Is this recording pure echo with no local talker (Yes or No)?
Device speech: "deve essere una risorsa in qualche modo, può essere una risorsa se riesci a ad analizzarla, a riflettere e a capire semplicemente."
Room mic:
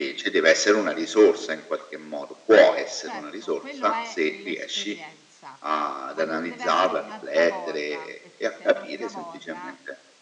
No